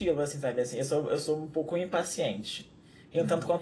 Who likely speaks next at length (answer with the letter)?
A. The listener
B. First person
B